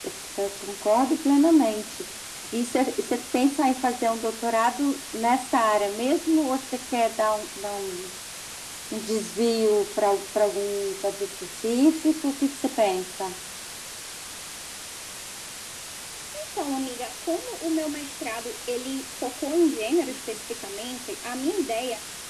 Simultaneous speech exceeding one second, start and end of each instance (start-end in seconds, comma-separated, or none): none